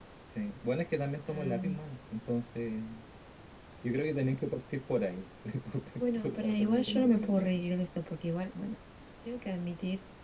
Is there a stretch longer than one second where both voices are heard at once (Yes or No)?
Yes